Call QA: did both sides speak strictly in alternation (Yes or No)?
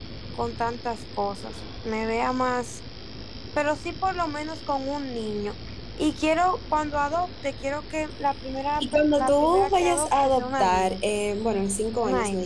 No